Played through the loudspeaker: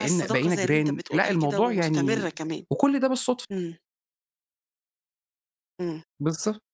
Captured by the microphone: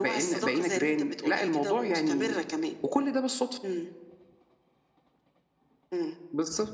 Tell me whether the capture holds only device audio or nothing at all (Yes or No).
Yes